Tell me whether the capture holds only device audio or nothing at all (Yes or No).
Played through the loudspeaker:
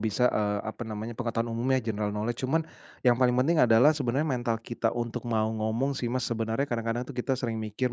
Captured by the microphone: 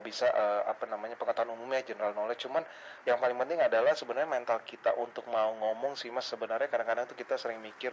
Yes